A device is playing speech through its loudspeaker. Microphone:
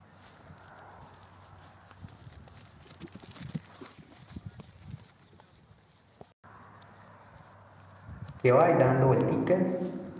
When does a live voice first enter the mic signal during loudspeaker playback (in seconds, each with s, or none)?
8.4 s